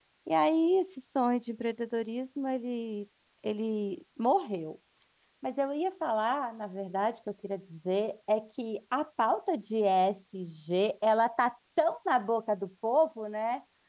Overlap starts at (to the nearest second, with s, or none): none